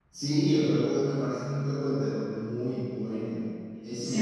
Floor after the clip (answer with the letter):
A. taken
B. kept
A